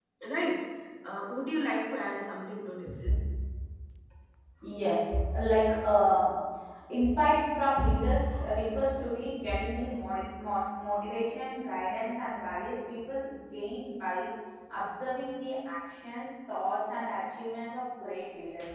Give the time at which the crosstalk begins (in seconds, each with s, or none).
none